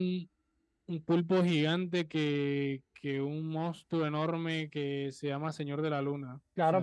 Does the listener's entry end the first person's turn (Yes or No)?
Yes